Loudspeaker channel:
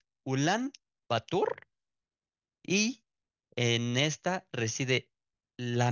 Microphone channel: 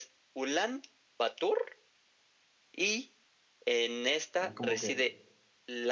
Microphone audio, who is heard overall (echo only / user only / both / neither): both